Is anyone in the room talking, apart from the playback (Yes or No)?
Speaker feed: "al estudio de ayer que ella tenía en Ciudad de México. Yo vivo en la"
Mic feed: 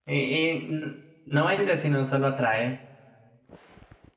Yes